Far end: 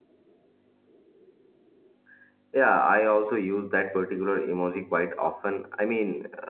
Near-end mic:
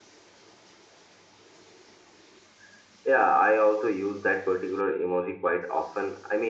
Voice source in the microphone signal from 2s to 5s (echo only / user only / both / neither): echo only